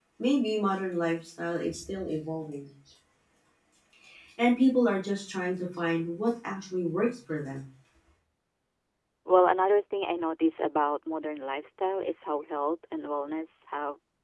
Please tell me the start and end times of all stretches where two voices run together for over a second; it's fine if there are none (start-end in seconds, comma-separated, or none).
none